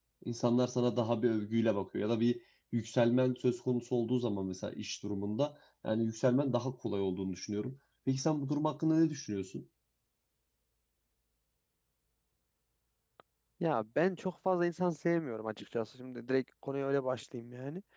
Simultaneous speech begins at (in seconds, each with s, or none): none